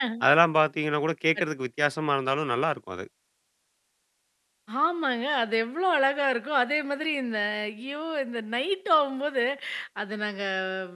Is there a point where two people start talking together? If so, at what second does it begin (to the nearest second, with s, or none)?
none